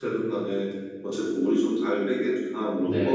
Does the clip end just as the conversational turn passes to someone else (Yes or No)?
Yes